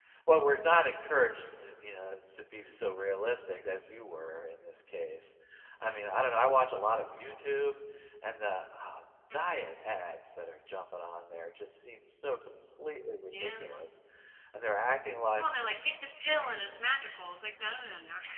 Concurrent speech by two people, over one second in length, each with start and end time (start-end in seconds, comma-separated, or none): none